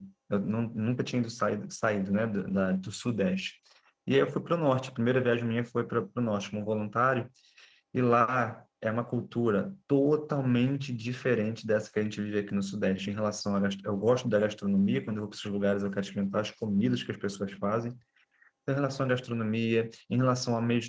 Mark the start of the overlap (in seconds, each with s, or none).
none